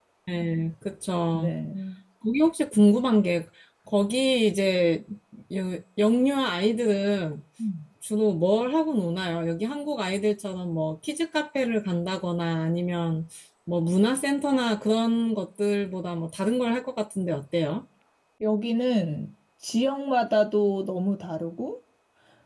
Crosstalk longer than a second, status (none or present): none